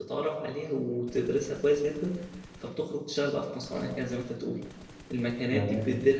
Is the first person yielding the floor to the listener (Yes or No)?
No